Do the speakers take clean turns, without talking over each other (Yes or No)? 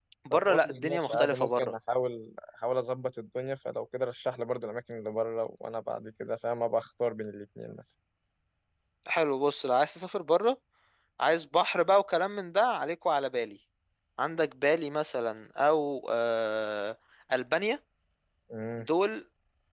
No